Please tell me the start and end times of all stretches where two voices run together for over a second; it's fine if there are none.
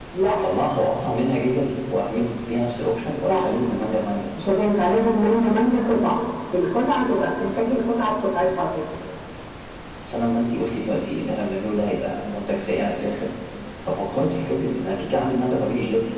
none

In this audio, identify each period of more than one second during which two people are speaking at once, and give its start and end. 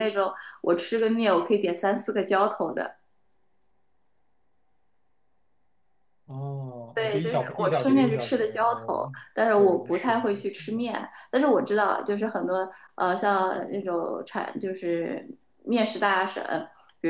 7.0-9.1, 9.6-10.8

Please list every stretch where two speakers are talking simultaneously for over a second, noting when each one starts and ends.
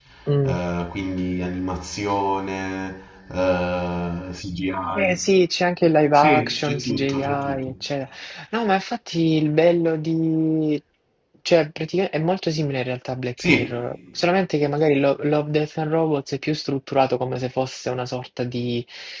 6.1-7.7

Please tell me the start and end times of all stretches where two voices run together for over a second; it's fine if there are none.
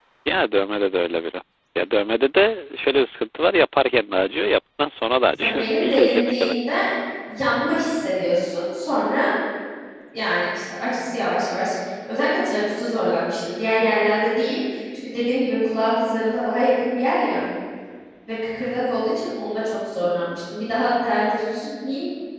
5.3-6.6

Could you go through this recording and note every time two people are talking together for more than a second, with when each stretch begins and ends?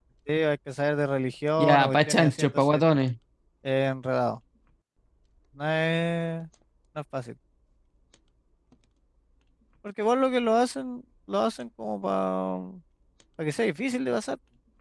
1.6-2.8

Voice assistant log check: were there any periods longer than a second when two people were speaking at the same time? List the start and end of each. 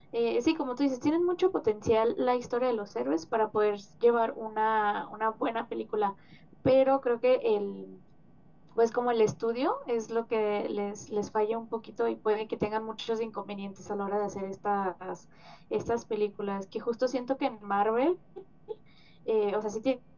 none

